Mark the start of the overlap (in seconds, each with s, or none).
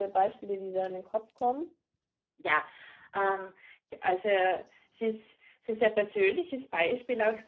none